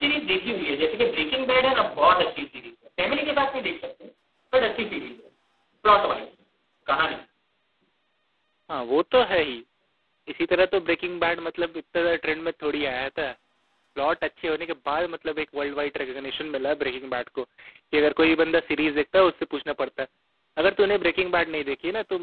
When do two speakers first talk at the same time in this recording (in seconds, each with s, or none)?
none